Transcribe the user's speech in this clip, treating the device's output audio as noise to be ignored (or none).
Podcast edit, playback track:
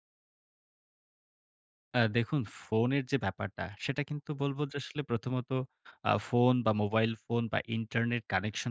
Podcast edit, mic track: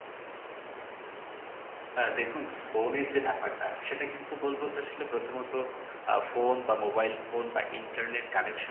none